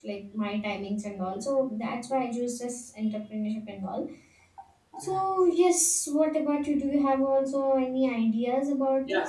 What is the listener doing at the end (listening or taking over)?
taking over